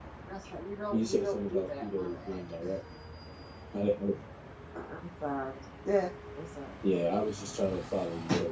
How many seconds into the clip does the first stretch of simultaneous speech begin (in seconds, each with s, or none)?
0.9 s